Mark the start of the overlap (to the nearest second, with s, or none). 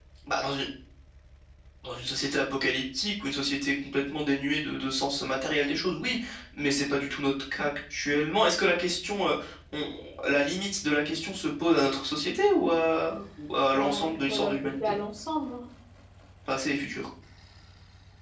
14 s